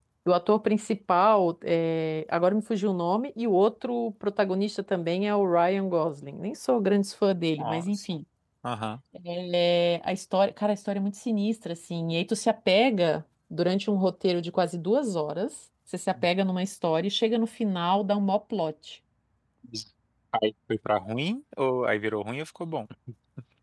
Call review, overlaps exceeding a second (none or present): none